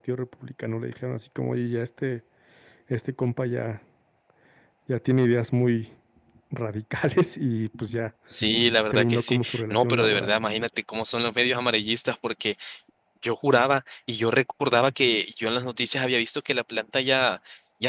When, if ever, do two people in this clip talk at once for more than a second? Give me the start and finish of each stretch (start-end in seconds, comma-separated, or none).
8.9-10.3